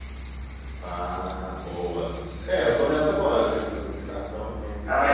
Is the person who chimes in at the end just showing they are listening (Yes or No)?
No